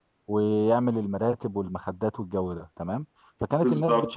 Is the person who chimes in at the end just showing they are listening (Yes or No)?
Yes